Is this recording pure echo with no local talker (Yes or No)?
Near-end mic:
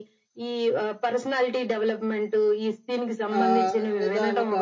No